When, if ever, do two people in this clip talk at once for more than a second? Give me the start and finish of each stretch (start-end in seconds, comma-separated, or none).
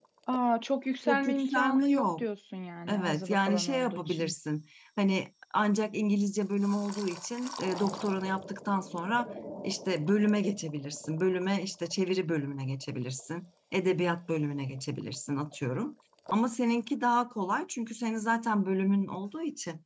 1.1-2.2, 2.9-4.3